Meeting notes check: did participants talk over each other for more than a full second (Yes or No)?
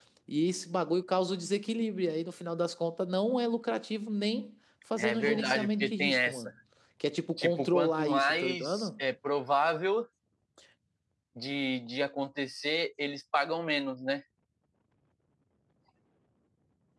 Yes